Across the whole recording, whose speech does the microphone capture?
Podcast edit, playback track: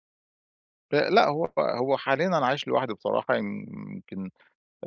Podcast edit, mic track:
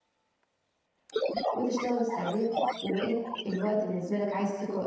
both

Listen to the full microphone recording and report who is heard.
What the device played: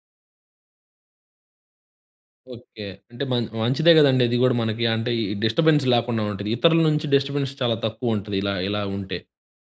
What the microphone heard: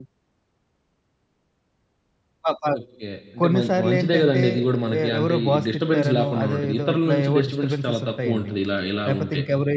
both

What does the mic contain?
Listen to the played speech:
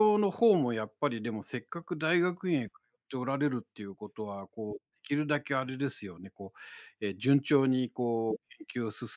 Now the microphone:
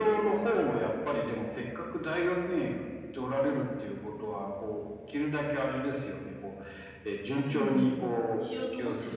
both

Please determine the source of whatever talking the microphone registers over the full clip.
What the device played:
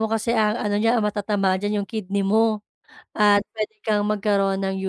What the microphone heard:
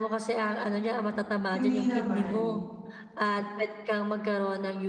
both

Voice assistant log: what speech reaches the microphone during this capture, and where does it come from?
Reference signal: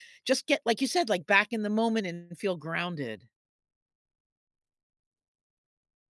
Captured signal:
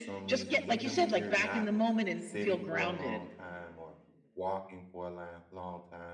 both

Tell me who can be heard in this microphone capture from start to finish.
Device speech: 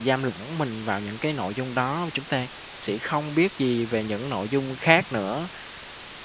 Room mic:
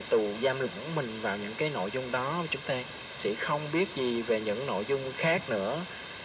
echo only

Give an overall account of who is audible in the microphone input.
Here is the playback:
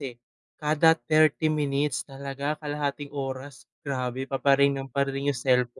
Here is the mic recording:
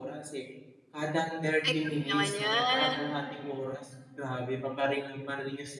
both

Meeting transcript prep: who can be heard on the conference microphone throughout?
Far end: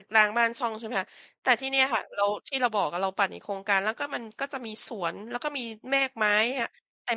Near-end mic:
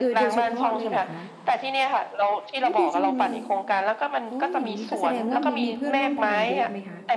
both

